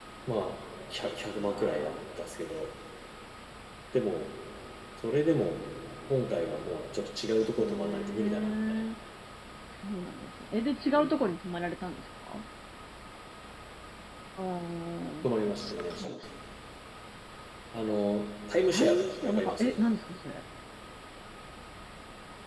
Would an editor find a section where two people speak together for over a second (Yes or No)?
Yes